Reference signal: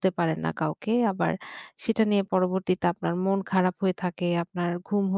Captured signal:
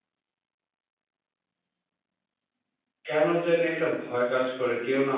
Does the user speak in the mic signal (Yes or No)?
Yes